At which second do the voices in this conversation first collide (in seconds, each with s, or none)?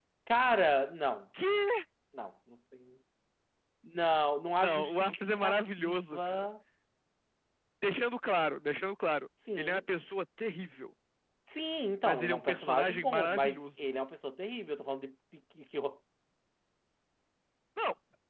4.6 s